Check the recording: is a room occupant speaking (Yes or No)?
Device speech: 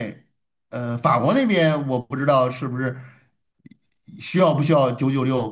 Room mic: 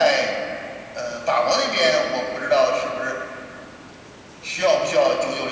No